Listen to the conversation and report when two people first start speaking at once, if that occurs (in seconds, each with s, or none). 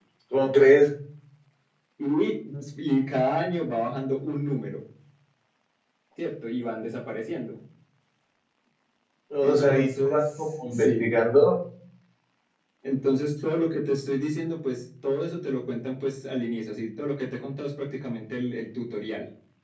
9.4 s